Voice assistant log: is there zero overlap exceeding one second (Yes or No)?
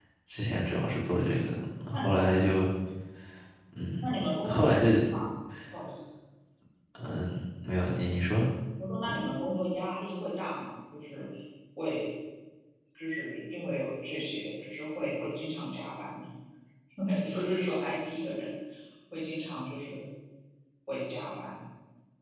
Yes